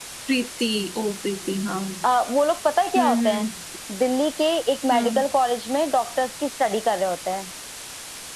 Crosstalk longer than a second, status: none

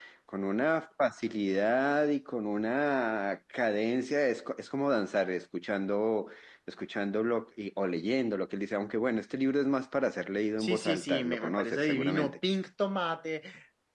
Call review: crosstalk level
present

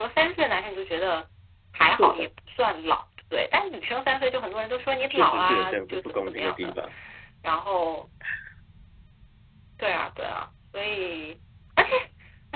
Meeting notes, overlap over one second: present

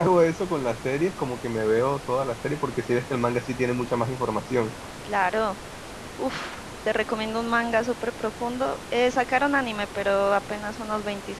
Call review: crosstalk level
none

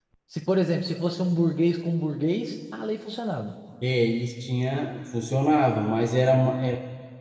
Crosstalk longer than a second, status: none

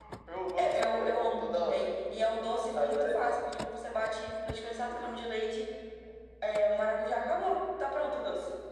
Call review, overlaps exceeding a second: present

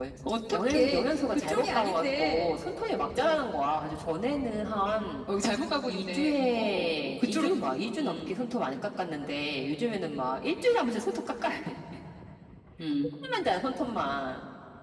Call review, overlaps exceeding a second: present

